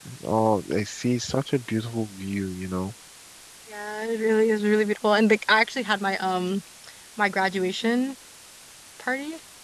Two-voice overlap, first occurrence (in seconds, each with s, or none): none